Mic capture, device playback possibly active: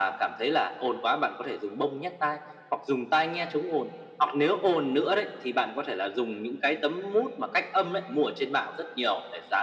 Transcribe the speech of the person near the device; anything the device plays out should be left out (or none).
none